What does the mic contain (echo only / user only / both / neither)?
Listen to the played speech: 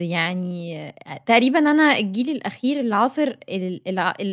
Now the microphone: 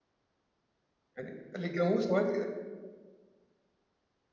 user only